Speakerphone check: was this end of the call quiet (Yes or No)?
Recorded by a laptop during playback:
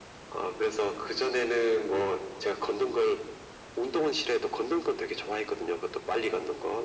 Yes